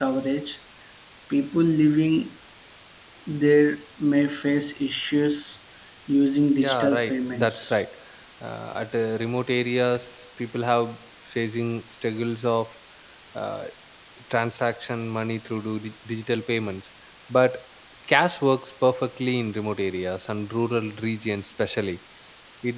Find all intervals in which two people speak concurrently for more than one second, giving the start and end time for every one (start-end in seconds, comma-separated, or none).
6.6-7.8